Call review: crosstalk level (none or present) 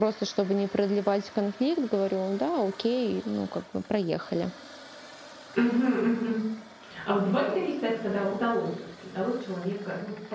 none